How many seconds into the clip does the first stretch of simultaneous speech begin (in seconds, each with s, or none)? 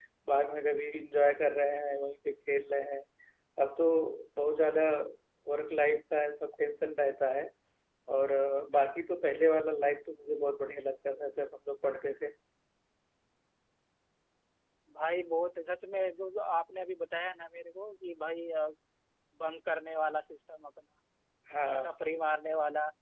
none